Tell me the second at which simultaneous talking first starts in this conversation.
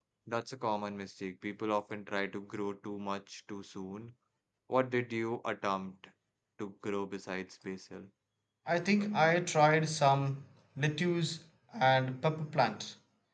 none

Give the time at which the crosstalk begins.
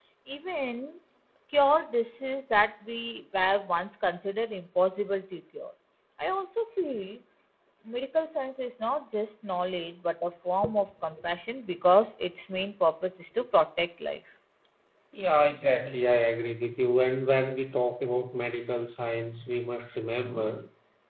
none

